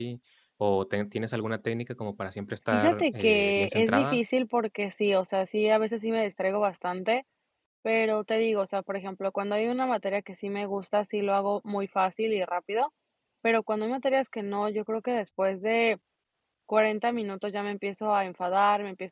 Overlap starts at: 2.7 s

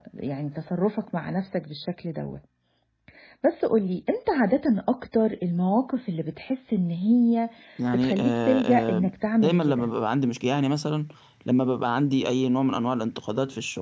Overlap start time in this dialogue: 7.9 s

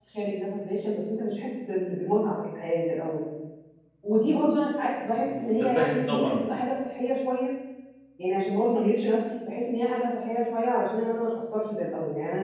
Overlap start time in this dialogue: 5.0 s

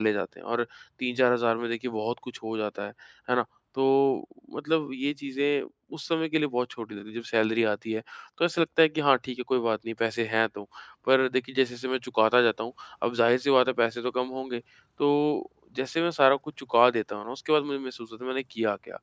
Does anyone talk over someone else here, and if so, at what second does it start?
none

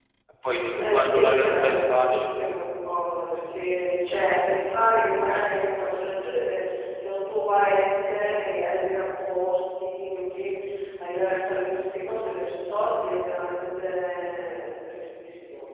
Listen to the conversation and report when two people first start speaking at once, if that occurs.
0.8 s

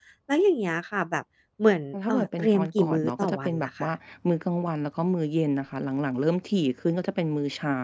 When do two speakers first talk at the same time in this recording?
1.9 s

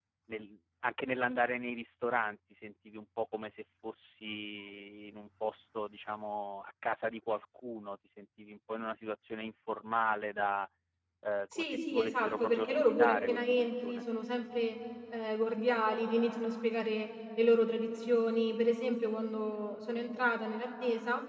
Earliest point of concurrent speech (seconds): 11.5 s

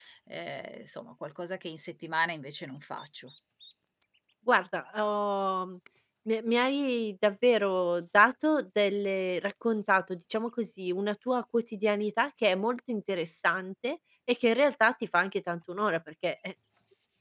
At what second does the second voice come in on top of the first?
none

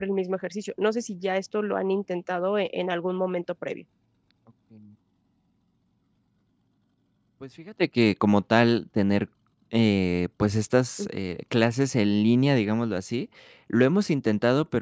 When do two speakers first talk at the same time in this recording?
none

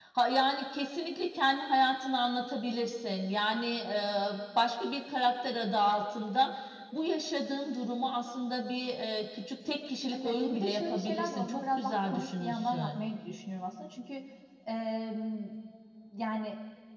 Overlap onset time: 10.1 s

